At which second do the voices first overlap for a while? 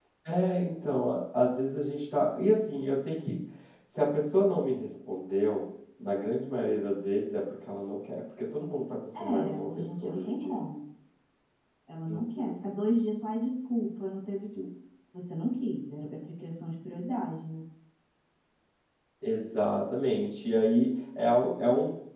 9.1 s

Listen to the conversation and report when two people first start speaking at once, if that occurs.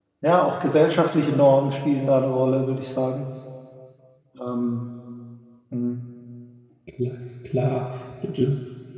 none

